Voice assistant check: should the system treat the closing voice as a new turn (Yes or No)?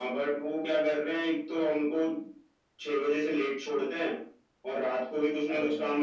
No